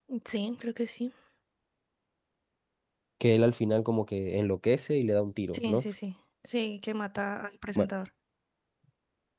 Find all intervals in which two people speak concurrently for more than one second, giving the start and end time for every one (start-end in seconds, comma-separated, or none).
none